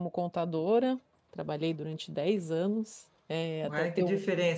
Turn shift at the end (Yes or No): Yes